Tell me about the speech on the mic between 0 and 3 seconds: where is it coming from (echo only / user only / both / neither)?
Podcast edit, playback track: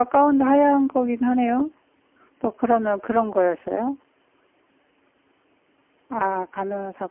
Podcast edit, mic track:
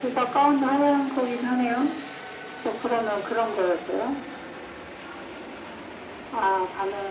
echo only